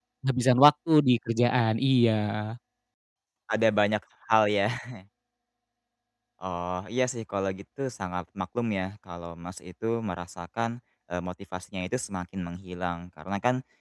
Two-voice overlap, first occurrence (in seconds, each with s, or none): none